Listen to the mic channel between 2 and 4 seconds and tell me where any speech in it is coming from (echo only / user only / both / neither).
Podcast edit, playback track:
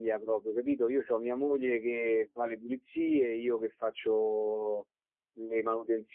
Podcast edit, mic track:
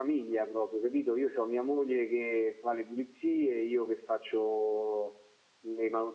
echo only